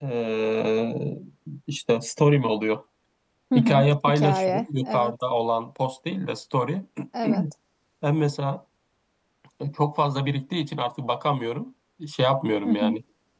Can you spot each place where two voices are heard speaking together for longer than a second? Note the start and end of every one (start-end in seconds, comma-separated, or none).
3.5-5.1